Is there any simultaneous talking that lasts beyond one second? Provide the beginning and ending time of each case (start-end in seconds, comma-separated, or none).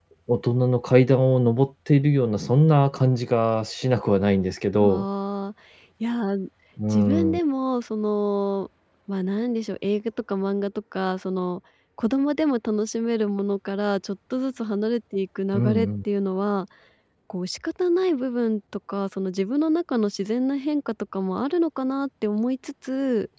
none